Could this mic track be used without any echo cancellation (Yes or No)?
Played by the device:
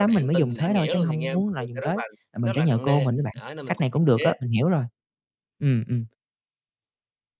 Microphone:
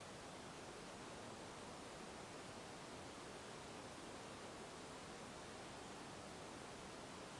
Yes